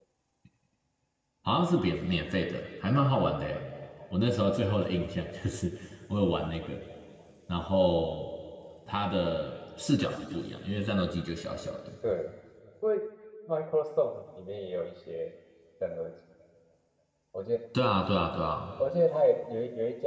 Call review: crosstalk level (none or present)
none